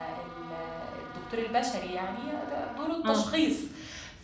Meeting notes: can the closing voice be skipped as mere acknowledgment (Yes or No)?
Yes